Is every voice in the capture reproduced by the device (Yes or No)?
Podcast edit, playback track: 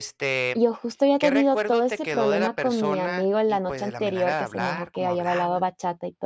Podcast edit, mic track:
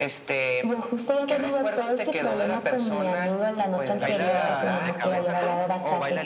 No